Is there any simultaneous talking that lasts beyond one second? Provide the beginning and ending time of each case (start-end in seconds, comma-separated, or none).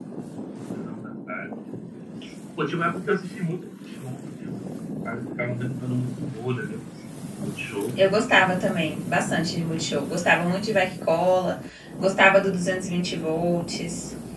none